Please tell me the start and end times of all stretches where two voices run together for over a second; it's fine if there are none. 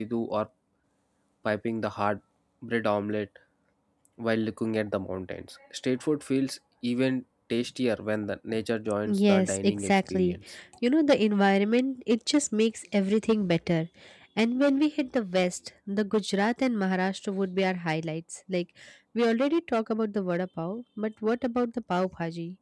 9.1-10.3

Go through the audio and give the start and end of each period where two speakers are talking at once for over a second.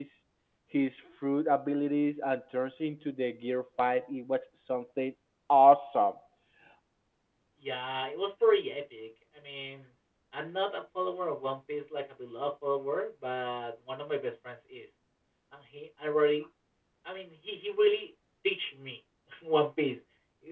none

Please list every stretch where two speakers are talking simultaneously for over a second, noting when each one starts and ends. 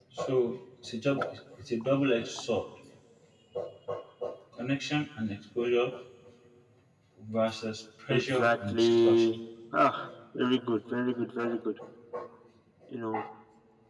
8.1-9.3

